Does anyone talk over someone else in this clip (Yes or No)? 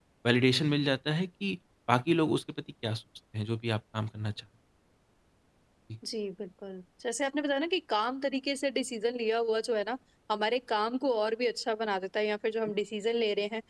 No